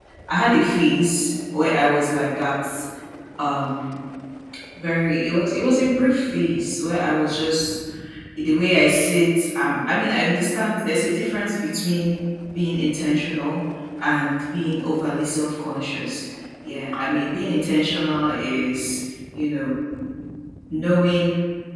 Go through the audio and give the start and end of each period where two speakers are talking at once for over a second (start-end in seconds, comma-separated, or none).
none